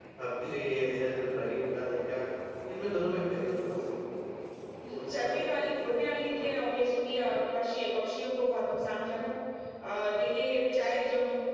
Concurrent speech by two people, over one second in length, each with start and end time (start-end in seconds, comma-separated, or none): 5.0-6.3